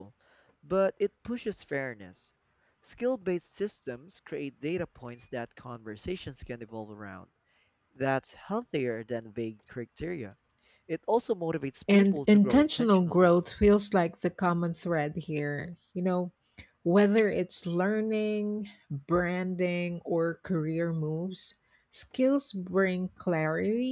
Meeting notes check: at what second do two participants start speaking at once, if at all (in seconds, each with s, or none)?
11.9 s